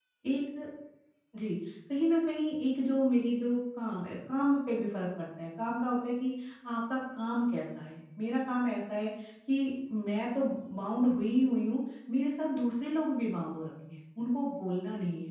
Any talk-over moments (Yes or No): No